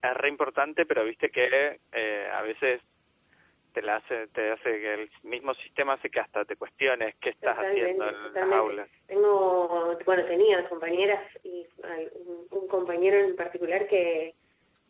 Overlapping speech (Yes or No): Yes